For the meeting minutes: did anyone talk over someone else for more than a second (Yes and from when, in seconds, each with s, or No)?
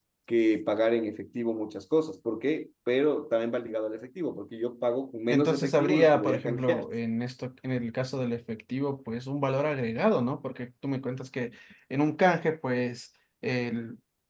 Yes, from 5.3 s